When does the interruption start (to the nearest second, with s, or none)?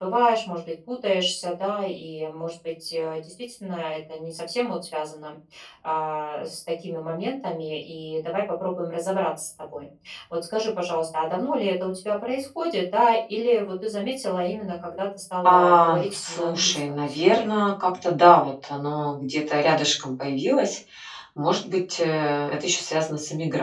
15 s